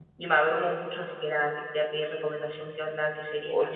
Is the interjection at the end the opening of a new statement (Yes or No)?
Yes